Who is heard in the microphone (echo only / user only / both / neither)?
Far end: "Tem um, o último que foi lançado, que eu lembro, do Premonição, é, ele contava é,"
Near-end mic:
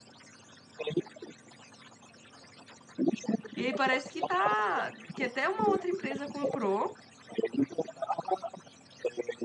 both